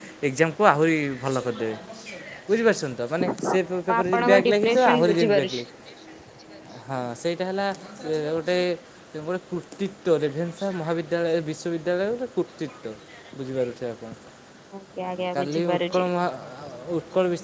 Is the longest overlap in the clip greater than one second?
Yes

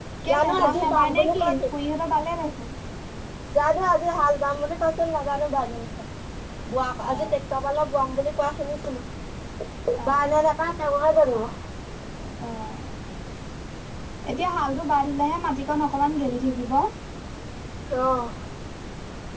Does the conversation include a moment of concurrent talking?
Yes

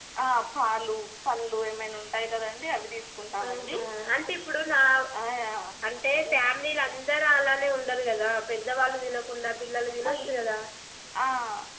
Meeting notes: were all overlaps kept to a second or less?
Yes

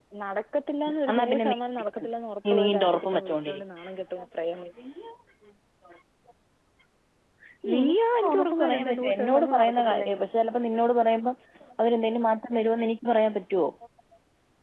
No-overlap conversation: No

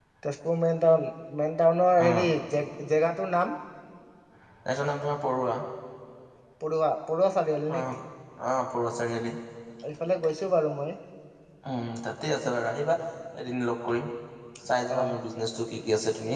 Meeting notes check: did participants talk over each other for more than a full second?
No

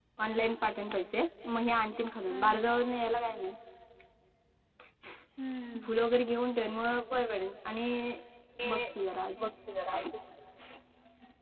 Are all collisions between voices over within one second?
Yes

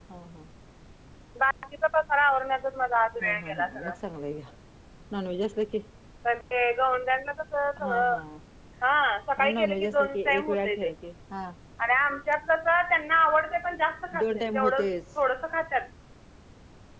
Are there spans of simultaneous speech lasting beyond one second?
Yes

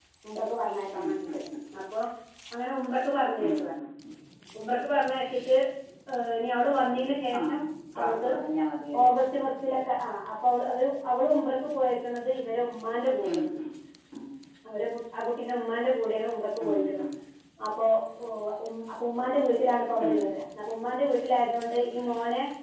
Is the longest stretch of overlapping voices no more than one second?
Yes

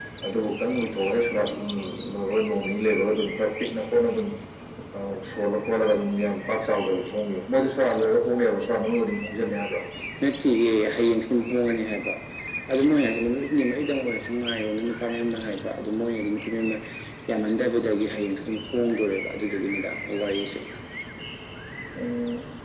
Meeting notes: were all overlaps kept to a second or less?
Yes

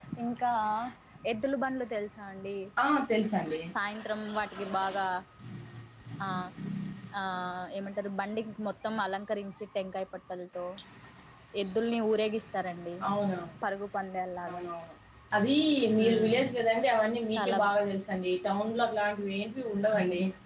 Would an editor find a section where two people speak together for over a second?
No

